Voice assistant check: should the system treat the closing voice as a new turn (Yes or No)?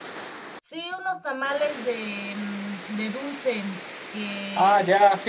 Yes